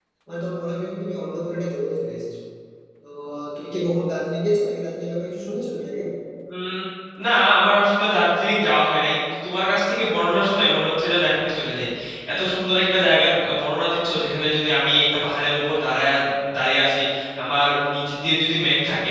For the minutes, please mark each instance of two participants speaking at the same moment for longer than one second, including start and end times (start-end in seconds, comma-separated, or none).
none